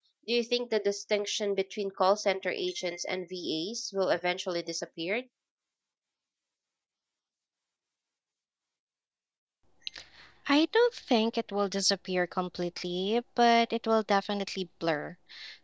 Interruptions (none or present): none